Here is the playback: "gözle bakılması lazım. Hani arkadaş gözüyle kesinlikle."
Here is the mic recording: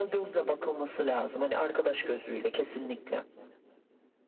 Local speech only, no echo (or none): none